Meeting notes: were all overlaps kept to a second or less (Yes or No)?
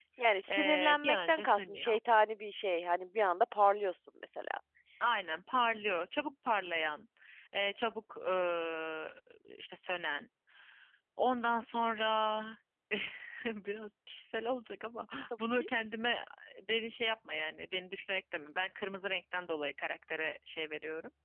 No